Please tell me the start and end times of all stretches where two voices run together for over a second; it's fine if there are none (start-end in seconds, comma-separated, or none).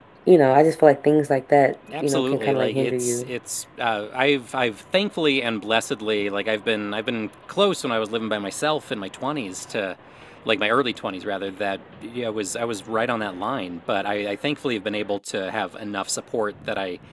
2.0-3.3